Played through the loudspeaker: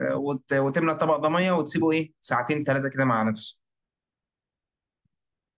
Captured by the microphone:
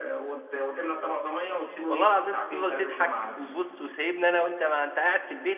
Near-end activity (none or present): present